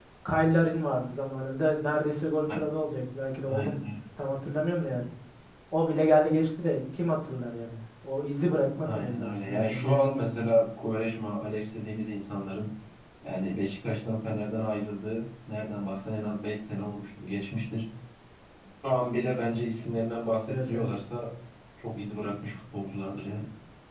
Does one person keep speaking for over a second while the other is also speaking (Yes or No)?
Yes